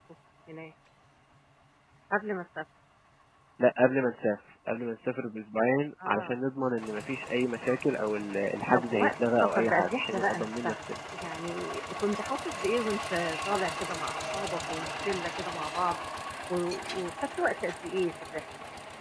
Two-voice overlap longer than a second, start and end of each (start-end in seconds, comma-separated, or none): 8.7-10.8